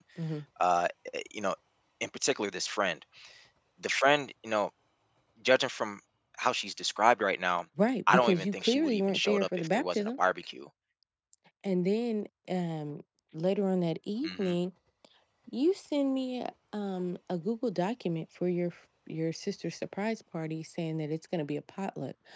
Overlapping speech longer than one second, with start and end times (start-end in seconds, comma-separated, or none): 8.1-10.1